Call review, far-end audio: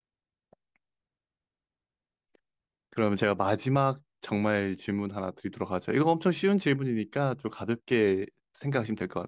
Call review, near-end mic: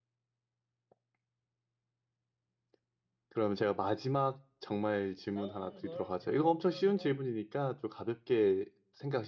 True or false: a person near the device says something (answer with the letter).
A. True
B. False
A